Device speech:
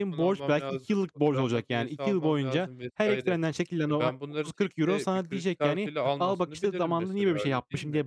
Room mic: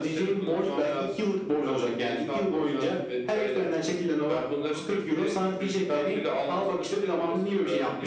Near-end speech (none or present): none